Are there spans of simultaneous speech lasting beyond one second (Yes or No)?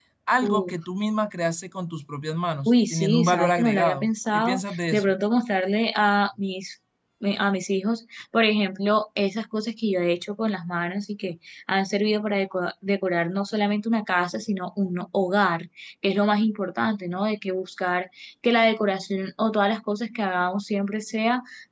Yes